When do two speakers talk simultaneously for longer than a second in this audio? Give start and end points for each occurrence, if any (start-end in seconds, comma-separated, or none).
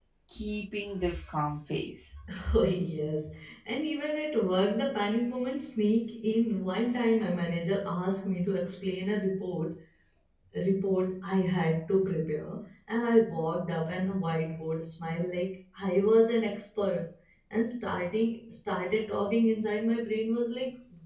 none